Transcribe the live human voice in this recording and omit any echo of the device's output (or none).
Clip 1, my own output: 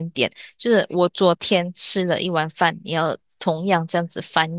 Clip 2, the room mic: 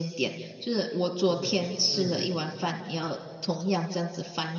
嗯嗯